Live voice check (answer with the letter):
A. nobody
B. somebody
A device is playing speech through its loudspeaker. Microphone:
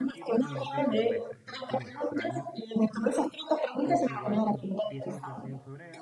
B